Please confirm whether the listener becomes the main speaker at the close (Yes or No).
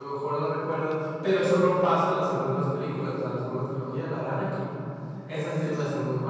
No